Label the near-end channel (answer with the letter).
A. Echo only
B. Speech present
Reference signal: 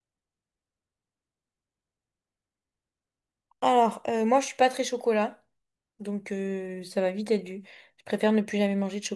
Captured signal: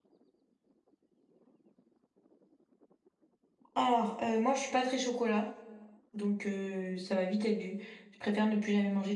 A